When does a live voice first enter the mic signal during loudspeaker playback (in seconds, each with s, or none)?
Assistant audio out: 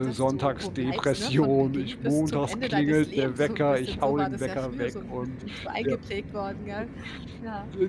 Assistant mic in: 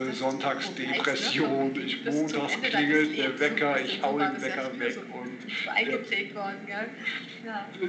none